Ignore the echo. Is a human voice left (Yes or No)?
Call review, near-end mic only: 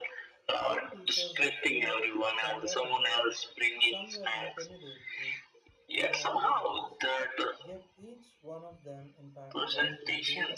Yes